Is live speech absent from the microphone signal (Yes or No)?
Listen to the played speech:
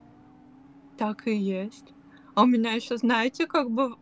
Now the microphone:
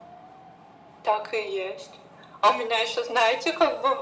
Yes